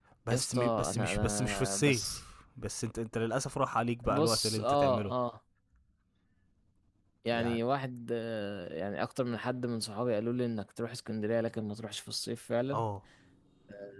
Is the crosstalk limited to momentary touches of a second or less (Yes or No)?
No